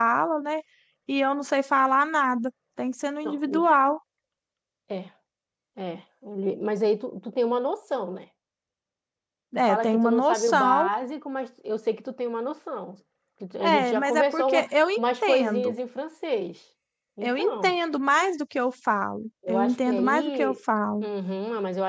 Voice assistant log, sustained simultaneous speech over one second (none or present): present